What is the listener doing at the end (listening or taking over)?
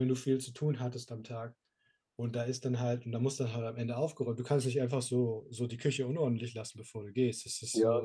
taking over